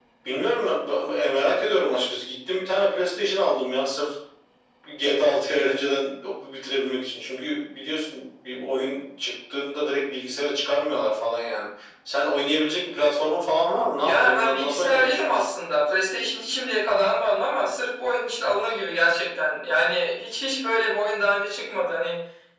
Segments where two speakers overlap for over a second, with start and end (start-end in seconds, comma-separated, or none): 14.0-15.4